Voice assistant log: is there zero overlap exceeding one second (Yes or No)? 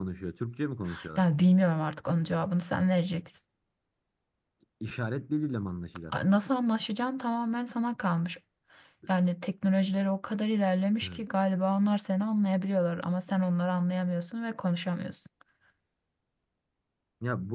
Yes